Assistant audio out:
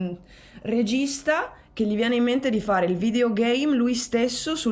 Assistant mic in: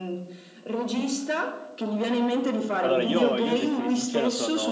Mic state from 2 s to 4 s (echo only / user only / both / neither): both